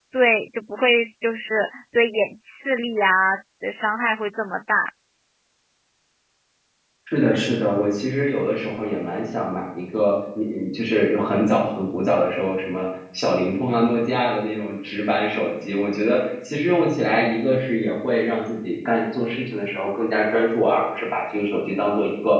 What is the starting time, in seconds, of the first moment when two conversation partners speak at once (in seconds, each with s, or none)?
none